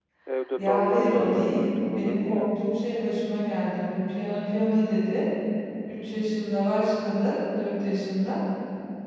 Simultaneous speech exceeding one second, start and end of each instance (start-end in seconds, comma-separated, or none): 0.6-2.6